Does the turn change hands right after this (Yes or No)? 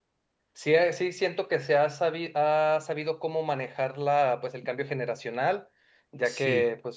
No